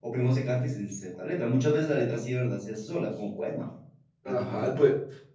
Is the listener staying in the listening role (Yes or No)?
No